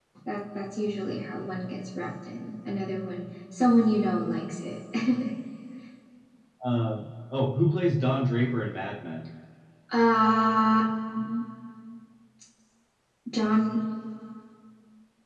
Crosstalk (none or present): none